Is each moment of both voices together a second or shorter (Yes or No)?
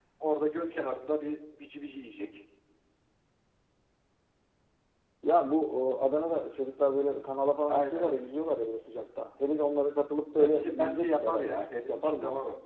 No